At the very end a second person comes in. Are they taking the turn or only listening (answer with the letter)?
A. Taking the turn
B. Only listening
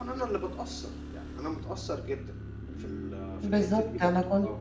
A